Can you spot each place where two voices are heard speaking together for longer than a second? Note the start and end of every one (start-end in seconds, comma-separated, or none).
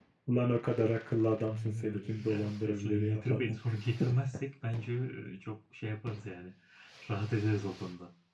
1.5-3.5